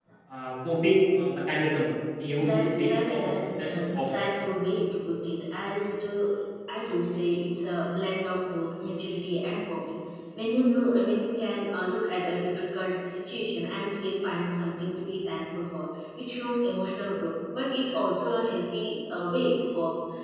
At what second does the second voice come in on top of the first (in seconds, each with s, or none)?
2.4 s